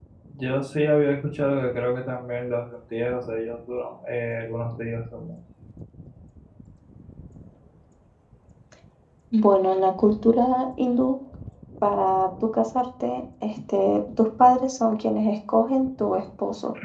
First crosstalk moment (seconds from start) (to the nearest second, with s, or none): none